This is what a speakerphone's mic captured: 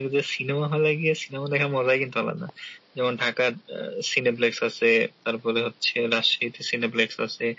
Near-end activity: none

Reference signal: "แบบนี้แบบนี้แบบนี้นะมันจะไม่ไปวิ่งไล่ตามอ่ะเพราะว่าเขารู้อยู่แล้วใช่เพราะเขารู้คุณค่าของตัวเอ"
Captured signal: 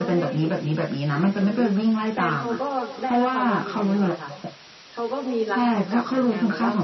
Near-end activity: present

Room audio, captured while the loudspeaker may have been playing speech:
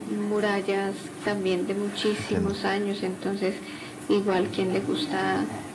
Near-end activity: present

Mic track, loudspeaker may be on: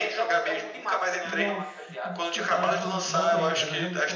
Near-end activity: present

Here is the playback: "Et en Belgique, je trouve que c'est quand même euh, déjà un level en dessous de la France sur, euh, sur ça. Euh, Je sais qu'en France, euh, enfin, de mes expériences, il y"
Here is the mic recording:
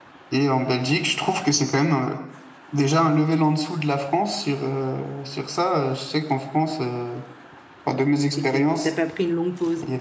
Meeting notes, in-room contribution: present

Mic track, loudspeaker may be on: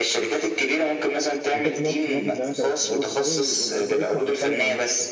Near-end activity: present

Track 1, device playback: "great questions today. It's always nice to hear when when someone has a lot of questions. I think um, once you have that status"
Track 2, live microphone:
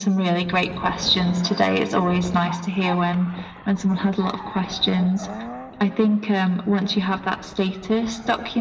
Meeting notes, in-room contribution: none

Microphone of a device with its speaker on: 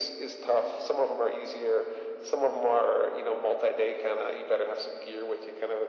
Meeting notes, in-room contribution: none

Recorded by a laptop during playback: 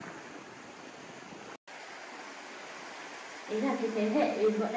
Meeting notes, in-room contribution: present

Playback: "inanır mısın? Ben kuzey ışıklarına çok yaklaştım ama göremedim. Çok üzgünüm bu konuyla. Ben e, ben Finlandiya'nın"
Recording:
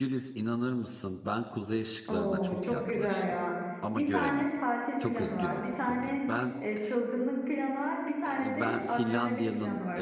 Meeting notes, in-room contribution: present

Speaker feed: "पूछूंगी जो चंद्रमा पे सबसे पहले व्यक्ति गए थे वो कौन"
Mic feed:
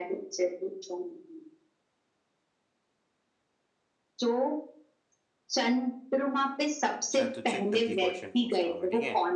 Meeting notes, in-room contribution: present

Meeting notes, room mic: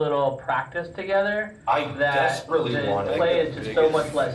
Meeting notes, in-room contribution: present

